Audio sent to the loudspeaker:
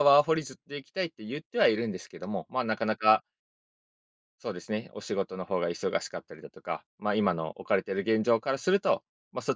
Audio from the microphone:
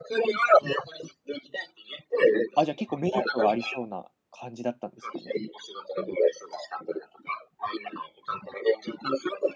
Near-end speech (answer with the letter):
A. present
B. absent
A